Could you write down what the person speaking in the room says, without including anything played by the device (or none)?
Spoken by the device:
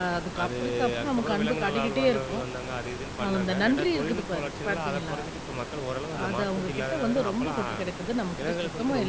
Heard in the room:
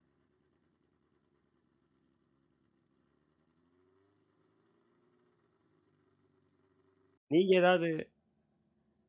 நீங்க ஏதாவது